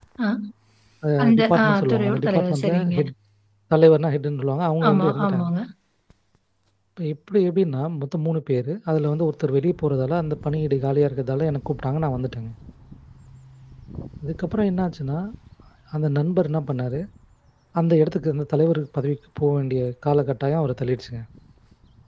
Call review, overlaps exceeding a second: present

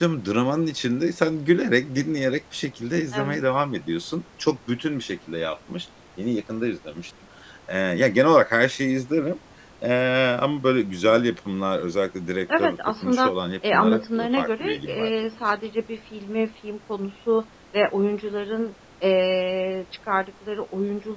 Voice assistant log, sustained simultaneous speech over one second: present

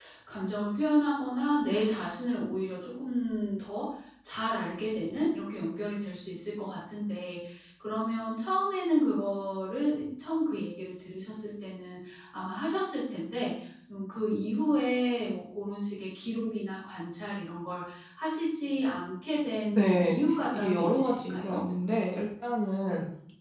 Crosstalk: present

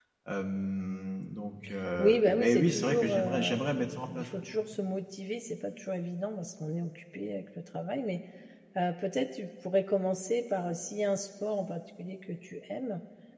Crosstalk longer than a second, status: present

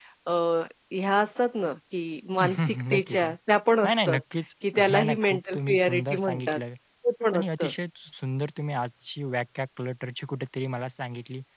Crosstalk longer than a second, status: present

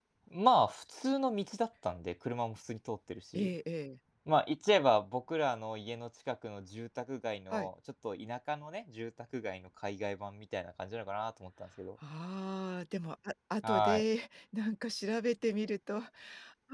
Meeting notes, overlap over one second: none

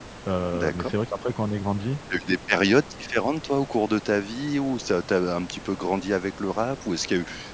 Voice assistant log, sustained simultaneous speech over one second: none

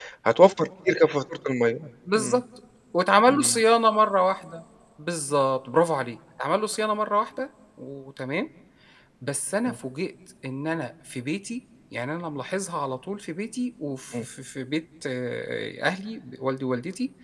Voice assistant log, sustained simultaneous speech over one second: none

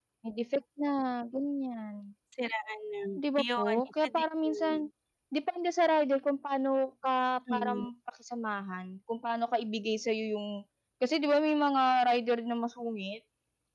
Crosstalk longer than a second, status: present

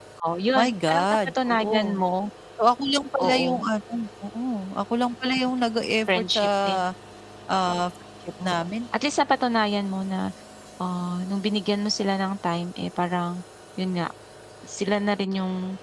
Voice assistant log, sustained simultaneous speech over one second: present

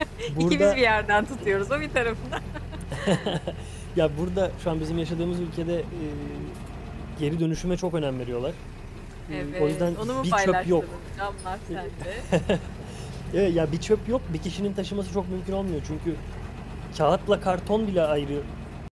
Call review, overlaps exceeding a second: present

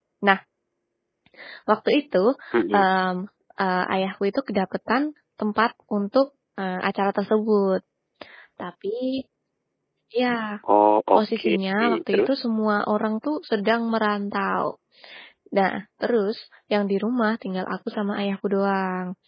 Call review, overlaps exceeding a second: none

